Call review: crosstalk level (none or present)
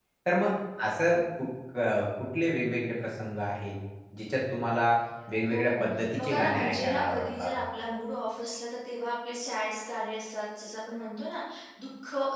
present